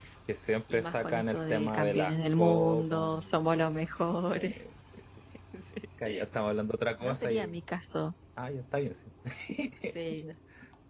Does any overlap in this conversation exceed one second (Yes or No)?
Yes